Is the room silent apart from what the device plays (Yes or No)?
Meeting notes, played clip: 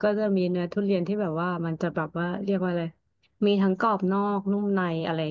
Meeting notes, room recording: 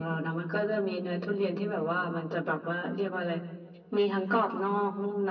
Yes